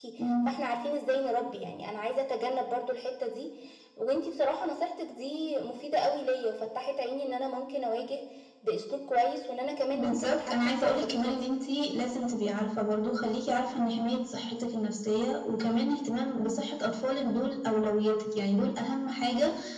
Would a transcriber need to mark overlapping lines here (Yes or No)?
Yes